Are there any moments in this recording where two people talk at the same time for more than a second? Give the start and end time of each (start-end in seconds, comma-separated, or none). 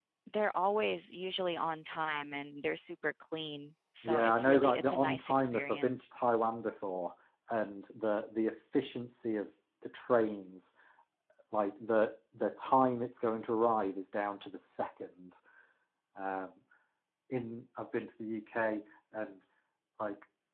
4.0-6.1